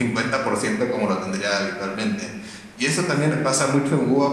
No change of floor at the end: Yes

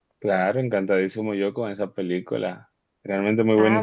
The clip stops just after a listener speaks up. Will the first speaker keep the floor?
No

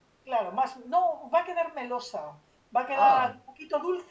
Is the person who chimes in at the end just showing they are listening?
Yes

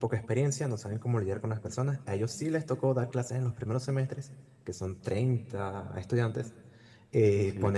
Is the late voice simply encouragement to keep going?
Yes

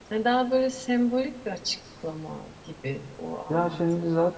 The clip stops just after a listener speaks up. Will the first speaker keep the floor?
No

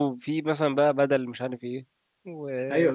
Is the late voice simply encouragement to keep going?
No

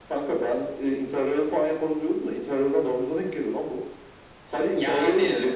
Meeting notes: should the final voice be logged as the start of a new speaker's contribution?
No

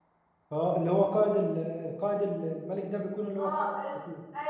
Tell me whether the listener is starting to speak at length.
Yes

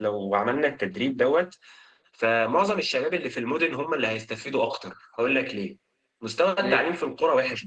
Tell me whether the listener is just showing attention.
Yes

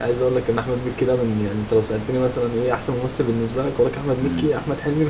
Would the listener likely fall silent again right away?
Yes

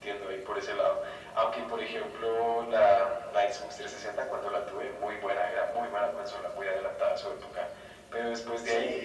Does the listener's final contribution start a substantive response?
No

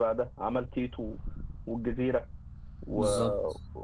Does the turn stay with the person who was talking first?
Yes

